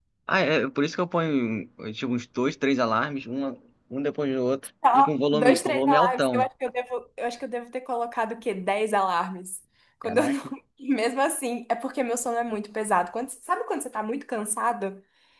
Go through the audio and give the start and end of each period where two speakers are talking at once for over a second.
4.9-6.5

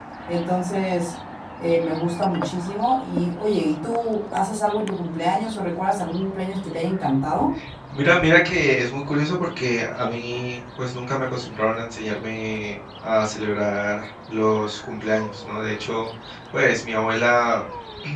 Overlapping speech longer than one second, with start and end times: none

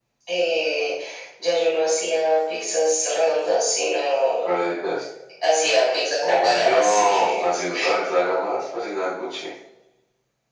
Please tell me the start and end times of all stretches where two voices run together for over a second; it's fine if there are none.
6.2-7.4

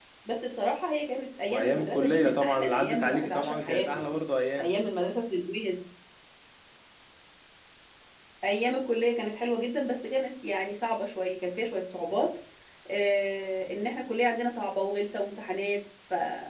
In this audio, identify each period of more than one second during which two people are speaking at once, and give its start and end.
1.5-4.2

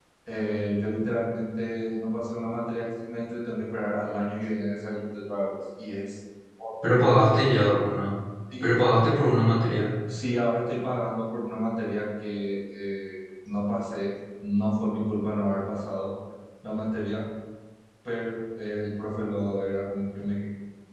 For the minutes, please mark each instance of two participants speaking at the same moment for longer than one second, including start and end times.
none

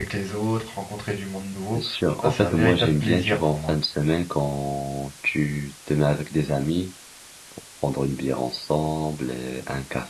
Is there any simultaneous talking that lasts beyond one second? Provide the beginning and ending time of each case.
2.2-3.7

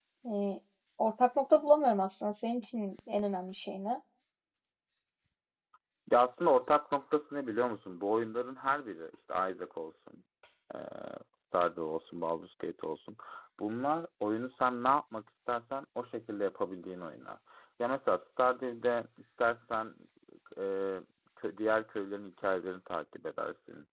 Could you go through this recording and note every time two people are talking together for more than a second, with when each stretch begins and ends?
none

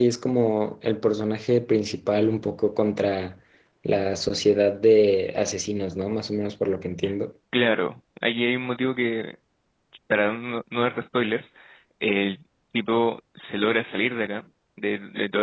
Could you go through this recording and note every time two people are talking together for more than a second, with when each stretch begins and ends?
none

